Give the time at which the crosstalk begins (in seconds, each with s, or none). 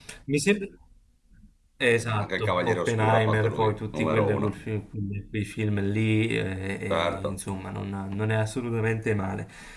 2.2 s